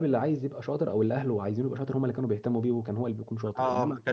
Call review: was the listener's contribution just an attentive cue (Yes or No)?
No